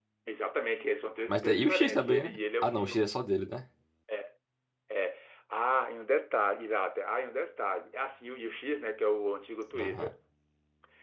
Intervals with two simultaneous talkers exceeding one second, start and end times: 1.3-3.0

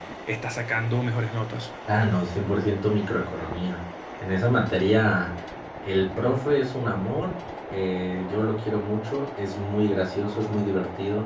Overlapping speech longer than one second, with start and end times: none

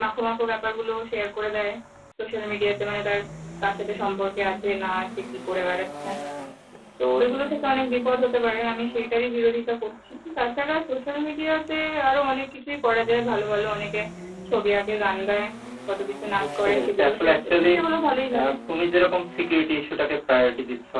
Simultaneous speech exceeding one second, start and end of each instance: 16.4-17.7

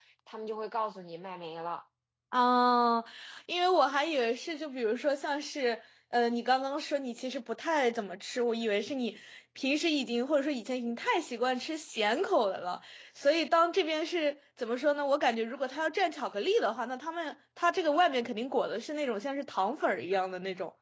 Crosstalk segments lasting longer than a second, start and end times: none

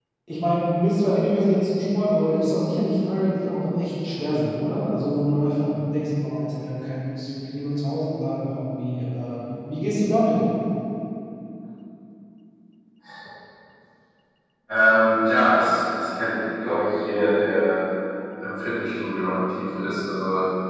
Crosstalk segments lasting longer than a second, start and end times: none

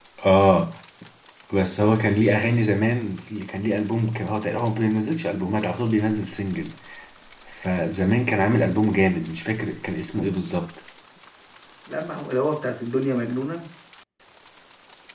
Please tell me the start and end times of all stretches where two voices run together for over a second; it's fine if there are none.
none

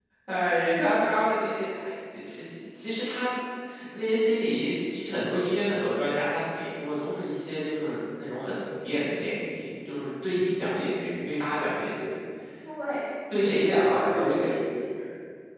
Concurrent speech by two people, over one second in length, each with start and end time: 13.3-14.6

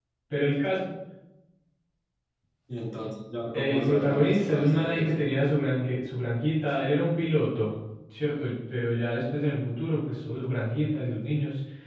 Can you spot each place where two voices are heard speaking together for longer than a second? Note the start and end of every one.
3.5-5.1

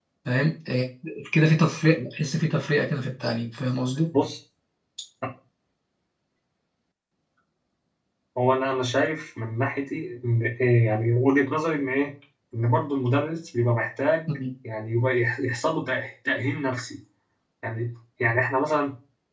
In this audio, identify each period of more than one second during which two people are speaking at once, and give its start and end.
none

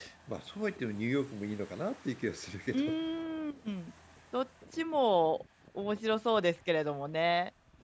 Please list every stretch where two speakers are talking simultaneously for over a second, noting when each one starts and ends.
none

